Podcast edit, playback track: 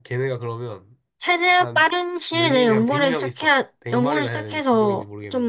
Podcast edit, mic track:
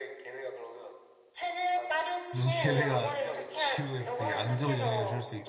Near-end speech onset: 2 s

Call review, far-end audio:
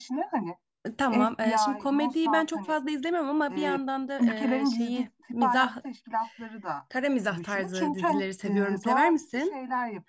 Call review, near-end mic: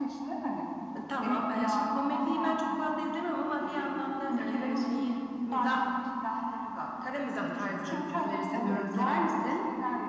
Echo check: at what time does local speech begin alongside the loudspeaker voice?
9 s

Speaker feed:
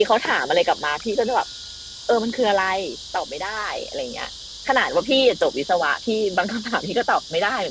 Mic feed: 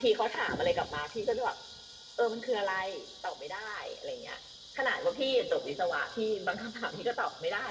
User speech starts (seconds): none

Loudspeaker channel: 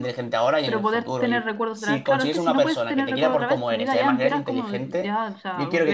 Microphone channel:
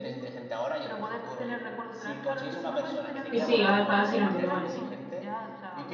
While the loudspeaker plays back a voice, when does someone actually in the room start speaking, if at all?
3 s

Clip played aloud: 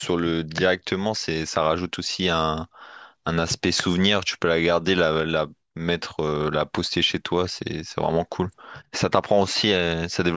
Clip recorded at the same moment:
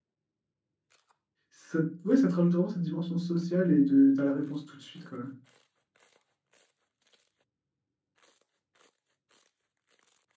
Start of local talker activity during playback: 2 s

